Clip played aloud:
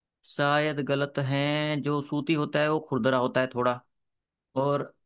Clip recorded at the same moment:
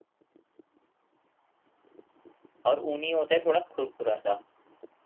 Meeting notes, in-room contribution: present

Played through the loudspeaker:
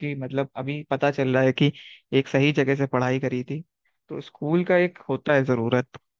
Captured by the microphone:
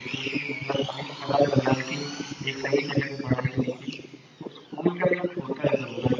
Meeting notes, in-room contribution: none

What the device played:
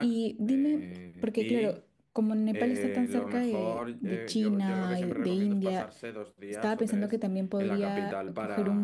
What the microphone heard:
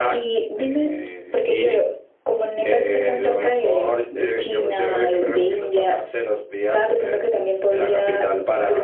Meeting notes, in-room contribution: none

